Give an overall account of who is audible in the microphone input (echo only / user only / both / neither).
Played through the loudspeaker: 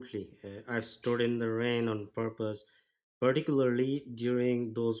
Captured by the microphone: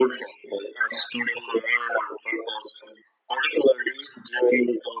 echo only